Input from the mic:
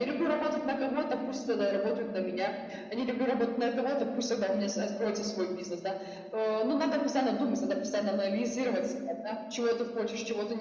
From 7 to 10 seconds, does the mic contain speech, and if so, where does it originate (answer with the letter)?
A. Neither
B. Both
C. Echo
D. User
C